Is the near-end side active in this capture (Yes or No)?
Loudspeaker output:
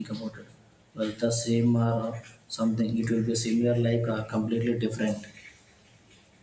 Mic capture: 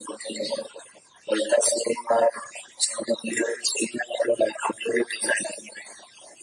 No